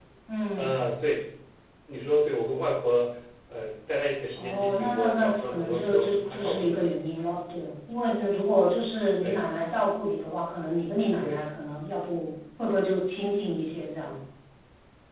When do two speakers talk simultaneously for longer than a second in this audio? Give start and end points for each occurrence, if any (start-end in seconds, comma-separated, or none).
4.3-6.9